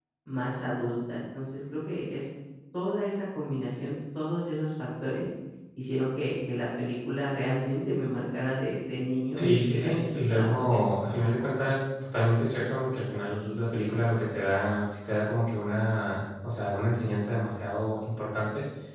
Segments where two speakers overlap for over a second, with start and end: 9.3-10.6

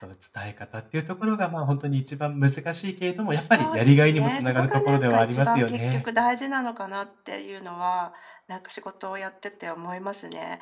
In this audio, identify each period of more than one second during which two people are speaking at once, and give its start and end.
3.4-6.0

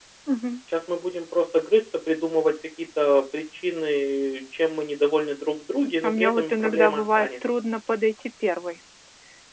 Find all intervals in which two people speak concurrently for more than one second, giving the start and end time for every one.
6.0-7.3

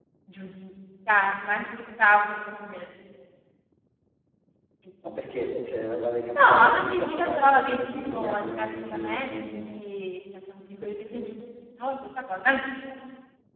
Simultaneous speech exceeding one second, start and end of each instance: 6.3-9.6

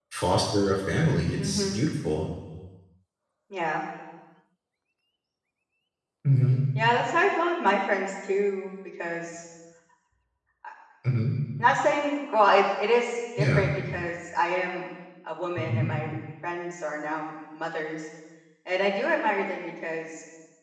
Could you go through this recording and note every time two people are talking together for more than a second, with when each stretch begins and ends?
none

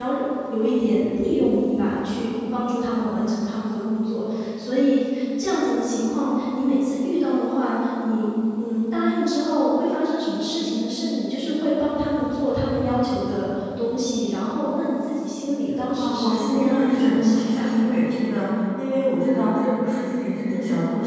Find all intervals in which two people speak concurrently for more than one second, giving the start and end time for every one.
16.0-17.9

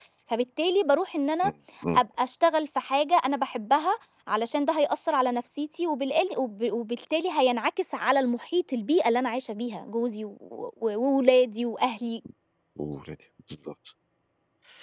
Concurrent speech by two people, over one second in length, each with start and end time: none

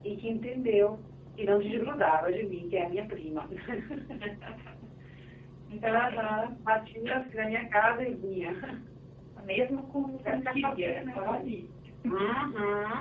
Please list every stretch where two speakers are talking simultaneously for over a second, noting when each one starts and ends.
10.2-11.5

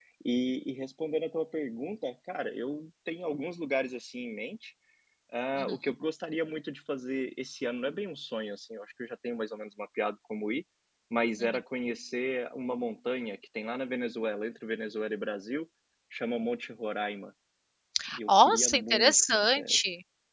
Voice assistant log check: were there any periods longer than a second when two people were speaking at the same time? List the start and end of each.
18.3-19.8

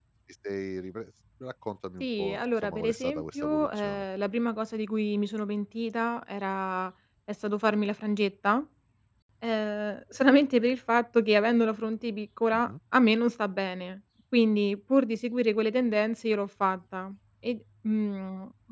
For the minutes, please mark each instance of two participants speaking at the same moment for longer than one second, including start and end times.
2.0-4.0

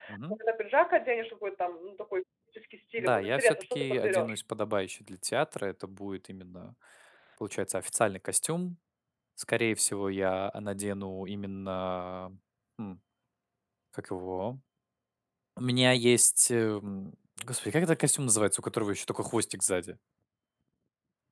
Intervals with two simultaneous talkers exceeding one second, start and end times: 3.0-4.4

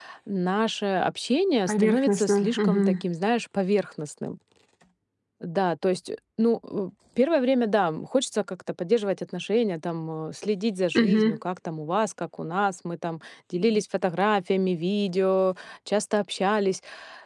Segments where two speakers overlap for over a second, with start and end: 1.7-3.0

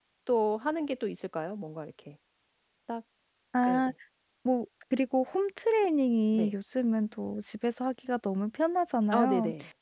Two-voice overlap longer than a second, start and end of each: none

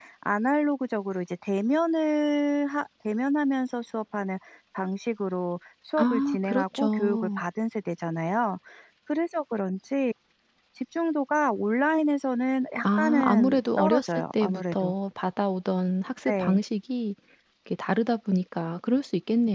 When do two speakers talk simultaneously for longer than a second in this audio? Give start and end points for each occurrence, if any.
6.0-7.4, 12.8-14.9

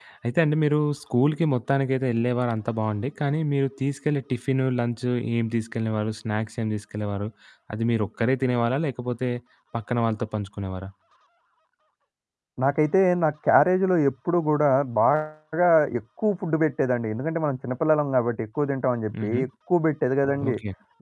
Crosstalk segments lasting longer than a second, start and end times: none

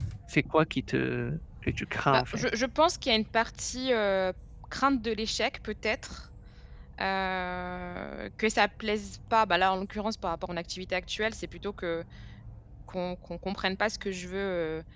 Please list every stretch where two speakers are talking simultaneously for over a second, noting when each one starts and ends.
none

